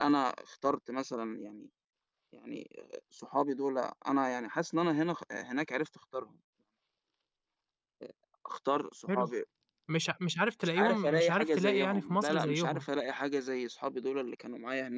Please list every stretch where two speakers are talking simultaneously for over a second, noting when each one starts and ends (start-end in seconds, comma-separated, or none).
10.6-12.8